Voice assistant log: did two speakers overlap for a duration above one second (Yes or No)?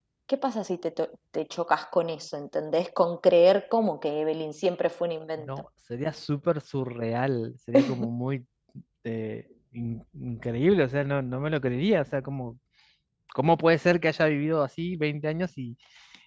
No